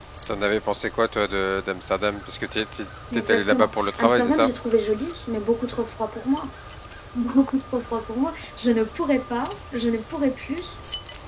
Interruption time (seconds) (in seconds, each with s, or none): 3.1 s